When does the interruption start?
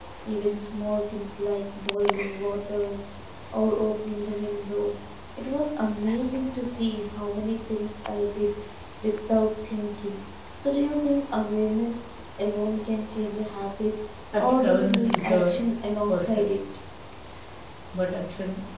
14.4 s

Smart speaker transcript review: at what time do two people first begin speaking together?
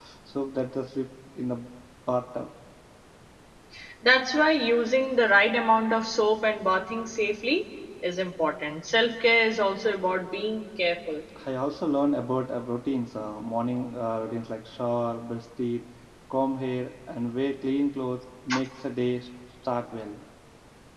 none

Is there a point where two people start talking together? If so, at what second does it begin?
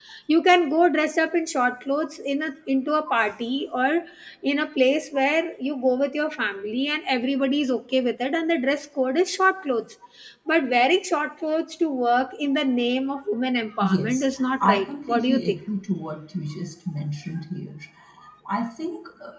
13.8 s

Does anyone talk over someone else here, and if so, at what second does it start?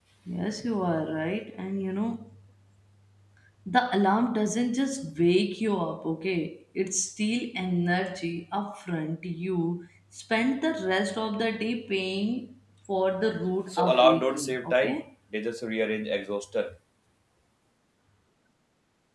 13.7 s

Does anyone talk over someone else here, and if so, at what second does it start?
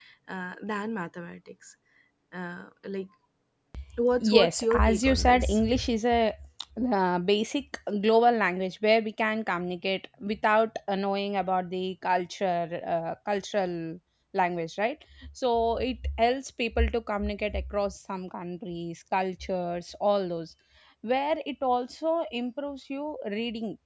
4.2 s

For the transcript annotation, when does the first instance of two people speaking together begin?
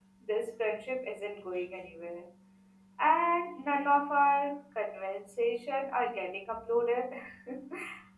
none

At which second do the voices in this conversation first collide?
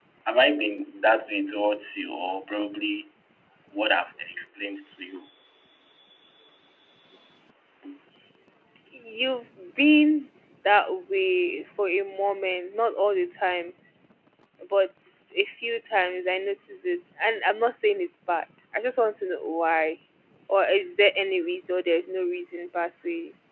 none

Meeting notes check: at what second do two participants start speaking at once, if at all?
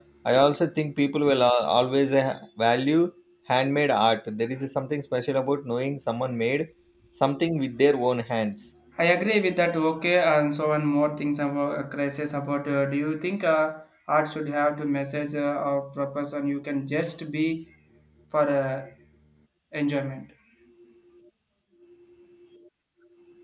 none

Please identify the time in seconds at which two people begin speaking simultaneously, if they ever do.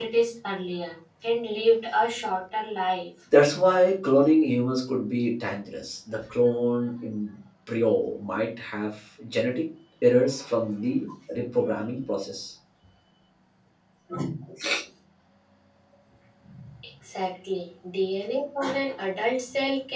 none

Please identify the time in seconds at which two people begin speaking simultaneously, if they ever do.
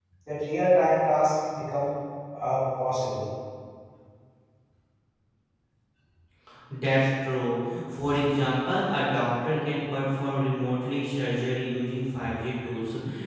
none

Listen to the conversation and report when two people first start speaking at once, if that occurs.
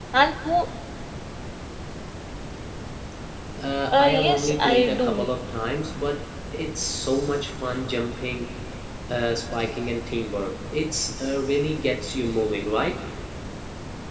3.9 s

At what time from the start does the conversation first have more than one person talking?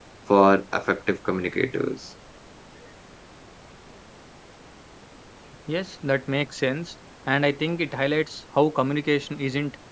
none

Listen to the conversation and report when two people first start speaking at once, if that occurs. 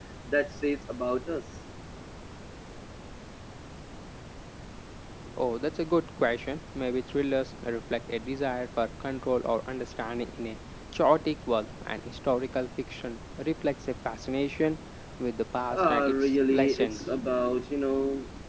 15.7 s

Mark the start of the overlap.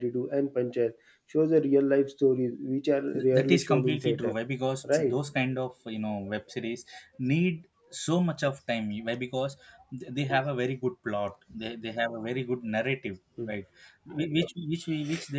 3.1 s

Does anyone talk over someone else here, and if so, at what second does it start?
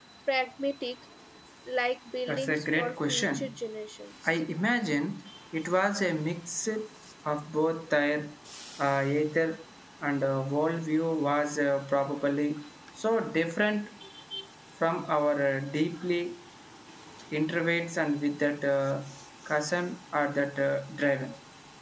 2.3 s

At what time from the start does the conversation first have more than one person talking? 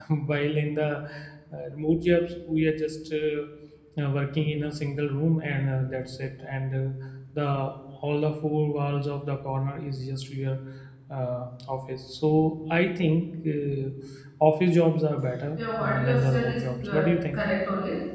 15.6 s

